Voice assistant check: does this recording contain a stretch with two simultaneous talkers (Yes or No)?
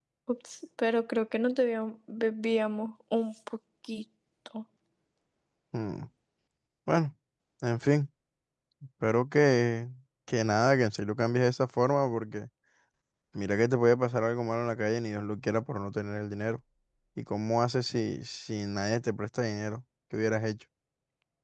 No